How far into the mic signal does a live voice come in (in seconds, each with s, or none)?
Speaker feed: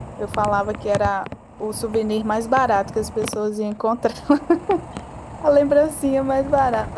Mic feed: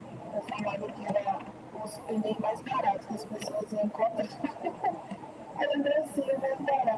none